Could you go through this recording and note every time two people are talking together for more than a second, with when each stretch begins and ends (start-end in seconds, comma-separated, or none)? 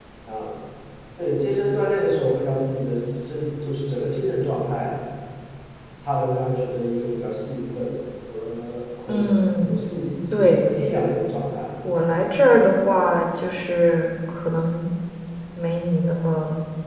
none